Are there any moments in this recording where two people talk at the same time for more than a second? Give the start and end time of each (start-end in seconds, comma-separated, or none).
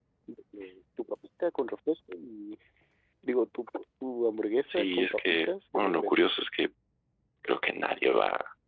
4.7-6.2